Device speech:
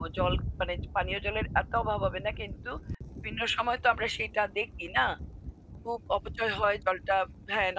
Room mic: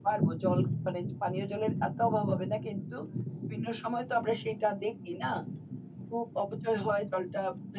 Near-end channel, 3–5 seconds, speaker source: echo only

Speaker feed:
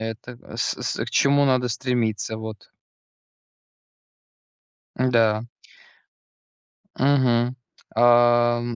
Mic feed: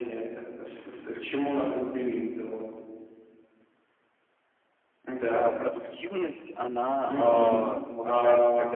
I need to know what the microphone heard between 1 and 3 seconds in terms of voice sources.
echo only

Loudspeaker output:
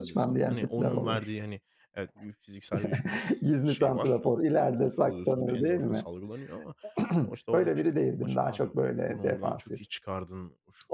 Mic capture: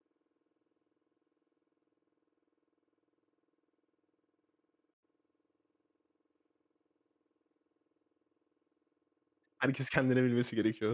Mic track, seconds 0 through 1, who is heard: neither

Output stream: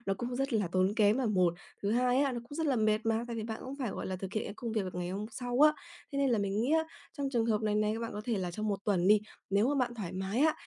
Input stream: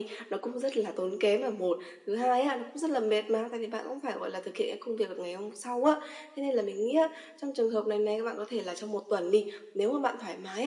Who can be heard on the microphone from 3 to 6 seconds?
echo only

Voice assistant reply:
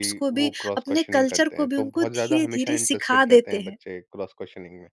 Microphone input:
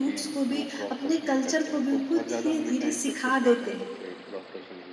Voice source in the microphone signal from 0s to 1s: echo only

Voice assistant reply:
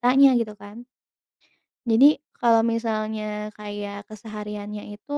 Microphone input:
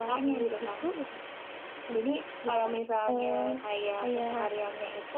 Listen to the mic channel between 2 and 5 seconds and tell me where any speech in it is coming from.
both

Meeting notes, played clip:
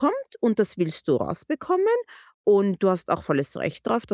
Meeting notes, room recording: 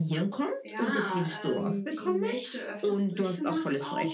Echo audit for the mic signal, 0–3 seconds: both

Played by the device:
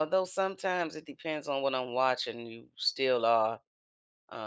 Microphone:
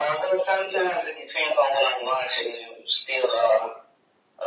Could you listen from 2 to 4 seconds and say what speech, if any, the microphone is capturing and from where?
echo only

